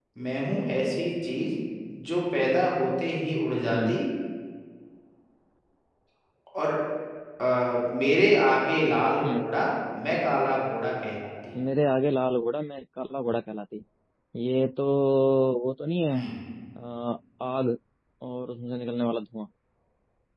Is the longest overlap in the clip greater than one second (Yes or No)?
No